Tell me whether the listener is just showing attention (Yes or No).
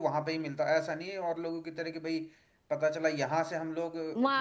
No